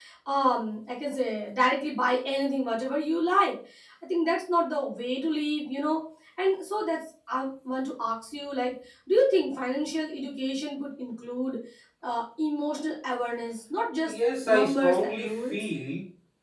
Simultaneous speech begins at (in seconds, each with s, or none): 14.0 s